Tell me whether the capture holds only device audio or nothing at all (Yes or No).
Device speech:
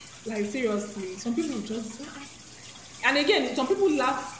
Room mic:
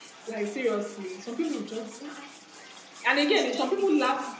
No